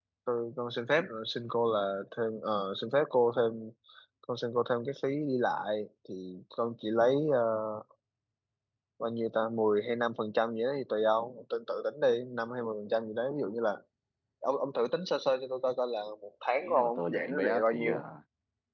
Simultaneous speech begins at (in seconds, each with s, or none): 16.6 s